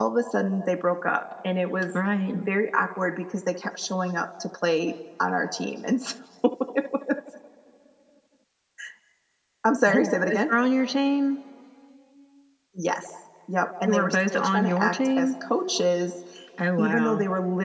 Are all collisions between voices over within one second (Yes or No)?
No